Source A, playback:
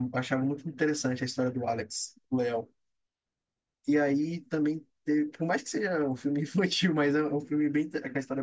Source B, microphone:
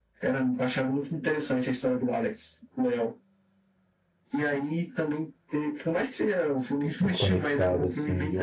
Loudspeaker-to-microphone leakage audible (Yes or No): Yes